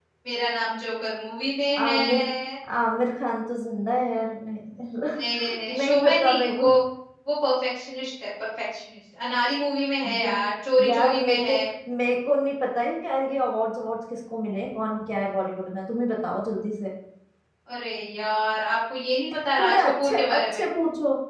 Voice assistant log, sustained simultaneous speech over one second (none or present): present